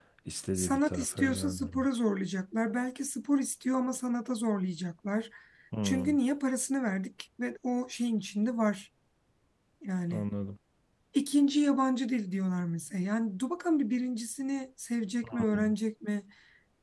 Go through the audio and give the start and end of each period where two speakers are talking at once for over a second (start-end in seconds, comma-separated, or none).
0.6-1.9